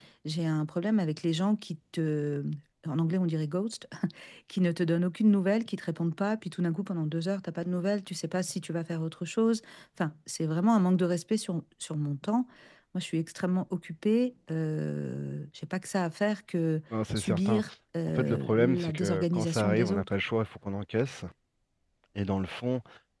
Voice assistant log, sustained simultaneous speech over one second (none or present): present